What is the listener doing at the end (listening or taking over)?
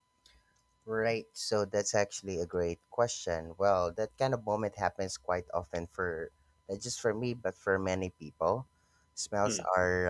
listening